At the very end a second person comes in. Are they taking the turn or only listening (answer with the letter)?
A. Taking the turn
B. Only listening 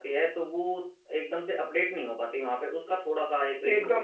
A